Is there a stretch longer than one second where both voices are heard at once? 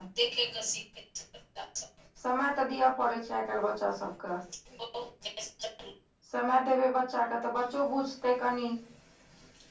No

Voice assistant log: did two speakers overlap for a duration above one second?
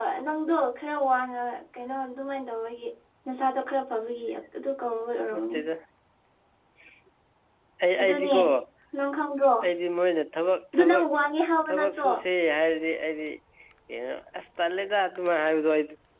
No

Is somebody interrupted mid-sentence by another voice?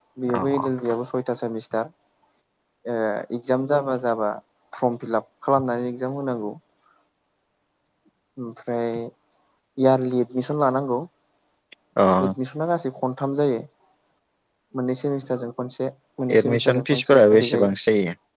Yes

